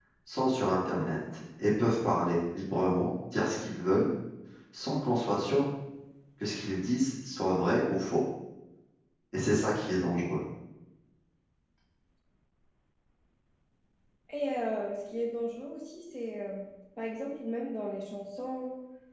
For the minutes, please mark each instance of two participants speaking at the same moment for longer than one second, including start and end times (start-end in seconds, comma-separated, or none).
none